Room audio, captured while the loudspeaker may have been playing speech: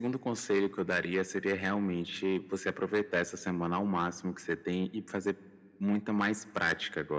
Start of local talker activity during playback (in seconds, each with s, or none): none